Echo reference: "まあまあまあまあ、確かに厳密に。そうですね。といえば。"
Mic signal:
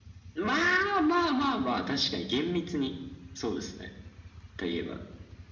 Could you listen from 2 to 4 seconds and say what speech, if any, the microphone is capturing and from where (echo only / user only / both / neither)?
echo only